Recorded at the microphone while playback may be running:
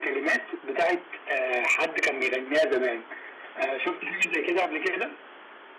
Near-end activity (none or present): none